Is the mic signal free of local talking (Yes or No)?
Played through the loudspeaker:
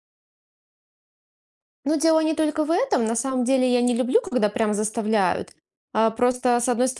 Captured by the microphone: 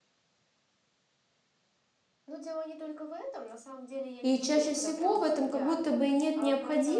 No